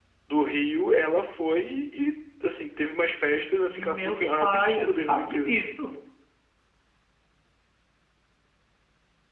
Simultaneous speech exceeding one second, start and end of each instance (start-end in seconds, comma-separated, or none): 3.6-5.5